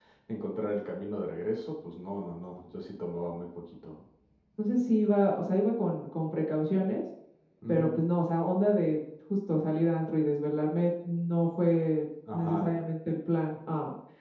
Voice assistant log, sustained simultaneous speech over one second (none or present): none